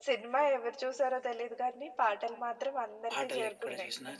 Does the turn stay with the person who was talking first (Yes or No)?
No